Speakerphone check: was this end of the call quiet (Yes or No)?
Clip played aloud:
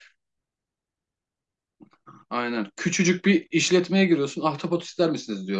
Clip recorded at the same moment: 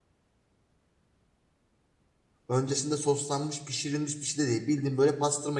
No